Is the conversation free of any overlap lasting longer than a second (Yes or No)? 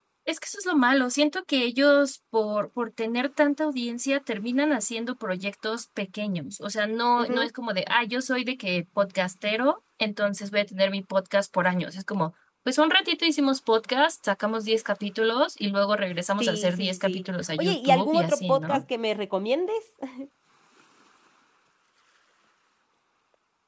No